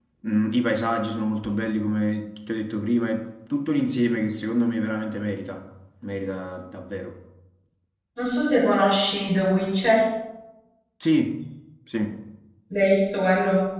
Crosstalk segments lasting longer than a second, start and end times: none

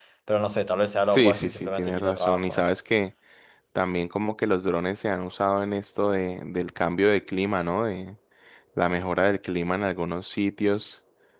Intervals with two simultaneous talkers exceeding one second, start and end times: 1.1-2.6

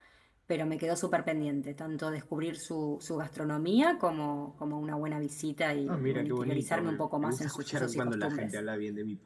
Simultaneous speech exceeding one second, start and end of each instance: 5.9-8.6

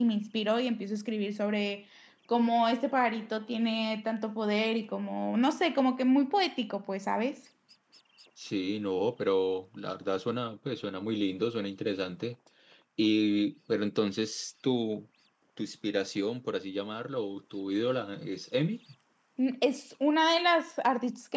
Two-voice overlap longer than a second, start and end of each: none

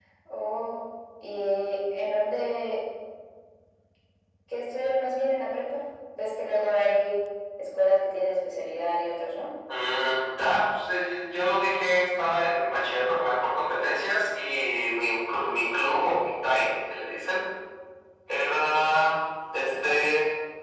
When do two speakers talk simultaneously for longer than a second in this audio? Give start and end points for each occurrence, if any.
none

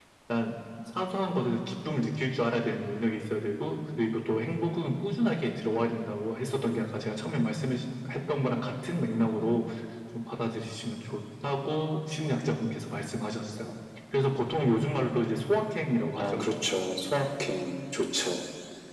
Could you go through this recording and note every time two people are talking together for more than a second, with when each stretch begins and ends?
none

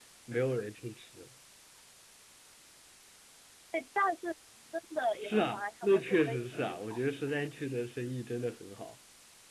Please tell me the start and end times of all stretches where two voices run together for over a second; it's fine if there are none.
5.2-7.0

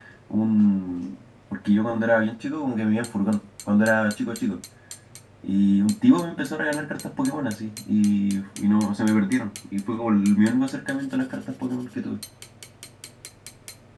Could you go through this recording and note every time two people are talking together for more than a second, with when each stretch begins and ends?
none

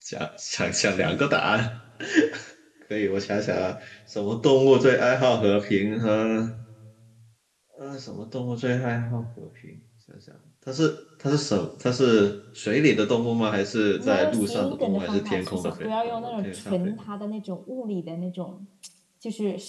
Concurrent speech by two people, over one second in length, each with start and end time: 14.0-17.0

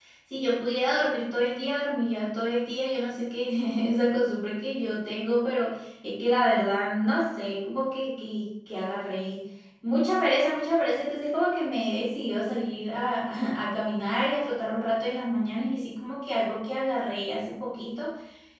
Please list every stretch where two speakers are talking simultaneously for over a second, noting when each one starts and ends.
none

